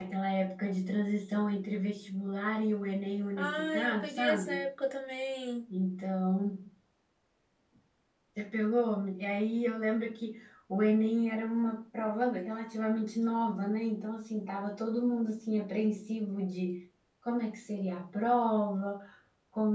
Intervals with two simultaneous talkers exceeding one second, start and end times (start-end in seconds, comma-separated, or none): 3.4-4.6